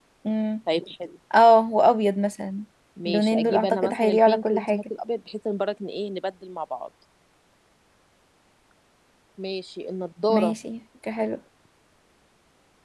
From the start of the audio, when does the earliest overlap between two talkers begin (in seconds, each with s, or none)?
3.1 s